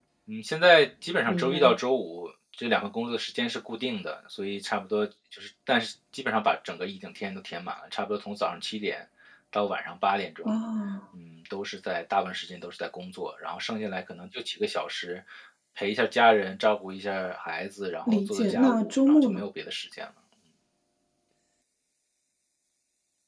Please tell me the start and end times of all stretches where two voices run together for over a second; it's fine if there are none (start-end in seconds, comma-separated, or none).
18.1-19.4